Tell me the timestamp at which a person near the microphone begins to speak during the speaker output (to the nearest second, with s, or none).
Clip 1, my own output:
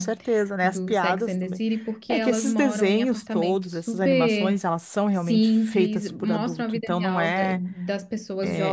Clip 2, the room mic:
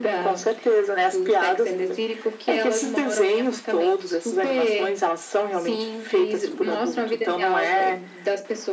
none